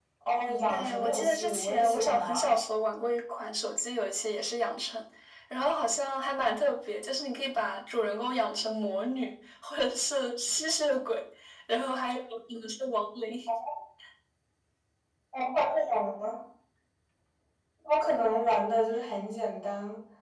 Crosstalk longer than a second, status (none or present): present